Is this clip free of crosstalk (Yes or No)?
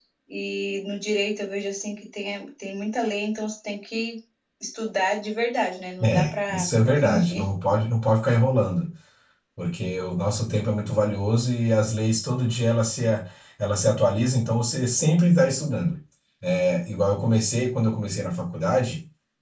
No